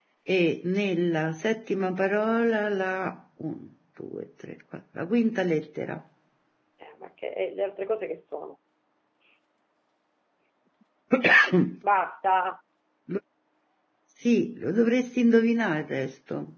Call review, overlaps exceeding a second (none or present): none